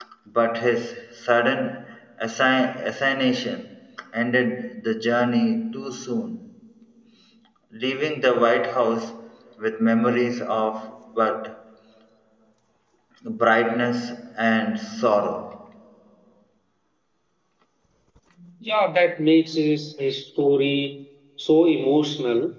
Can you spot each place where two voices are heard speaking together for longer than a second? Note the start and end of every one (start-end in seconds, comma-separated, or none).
none